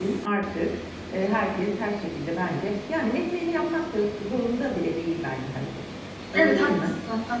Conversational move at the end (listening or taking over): taking over